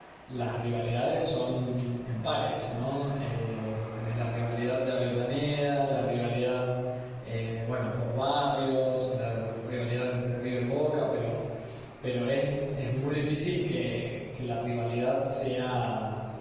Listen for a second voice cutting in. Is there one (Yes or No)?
No